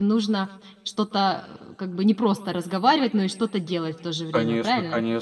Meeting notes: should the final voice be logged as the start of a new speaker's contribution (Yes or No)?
Yes